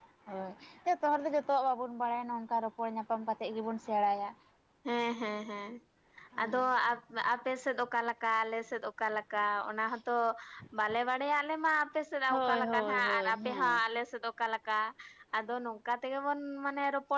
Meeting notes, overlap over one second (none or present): present